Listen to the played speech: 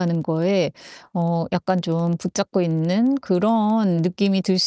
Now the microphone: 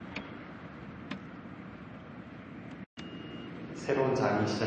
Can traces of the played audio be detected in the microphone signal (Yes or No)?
No